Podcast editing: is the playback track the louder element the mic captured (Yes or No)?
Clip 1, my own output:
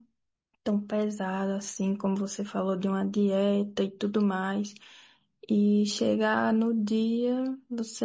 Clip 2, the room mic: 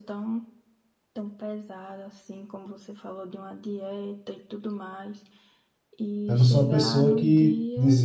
No